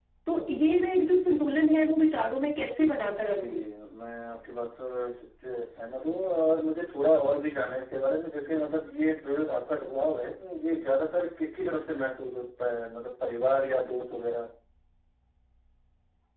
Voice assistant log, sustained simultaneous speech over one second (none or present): none